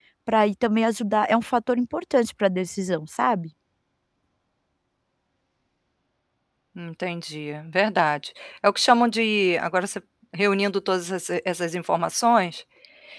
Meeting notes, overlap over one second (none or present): none